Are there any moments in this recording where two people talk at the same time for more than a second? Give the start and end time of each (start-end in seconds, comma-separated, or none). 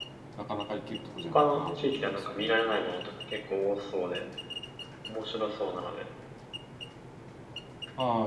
1.2-2.6